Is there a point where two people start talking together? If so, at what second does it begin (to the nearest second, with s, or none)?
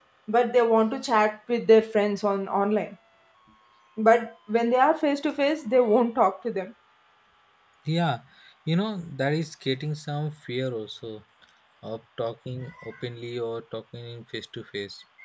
none